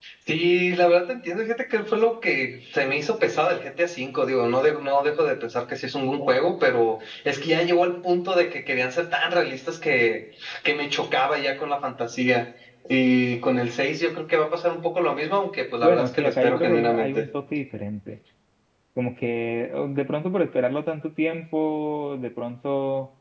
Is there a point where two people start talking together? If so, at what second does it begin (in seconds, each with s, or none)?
15.8 s